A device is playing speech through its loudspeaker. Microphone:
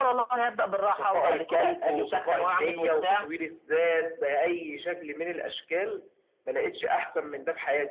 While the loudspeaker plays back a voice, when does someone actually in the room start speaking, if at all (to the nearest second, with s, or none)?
none